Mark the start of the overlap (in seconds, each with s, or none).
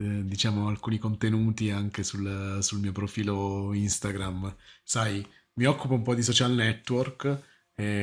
none